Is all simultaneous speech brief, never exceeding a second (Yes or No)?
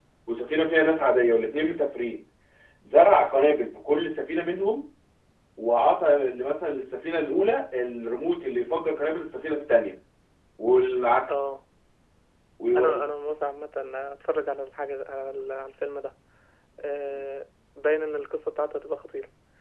Yes